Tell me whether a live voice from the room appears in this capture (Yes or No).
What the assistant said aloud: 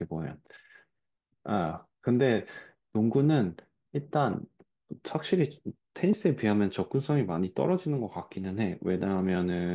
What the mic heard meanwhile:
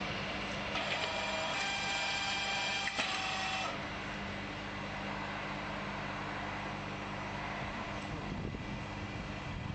No